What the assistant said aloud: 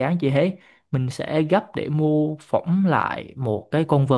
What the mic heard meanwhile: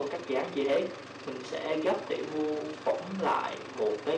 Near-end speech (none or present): none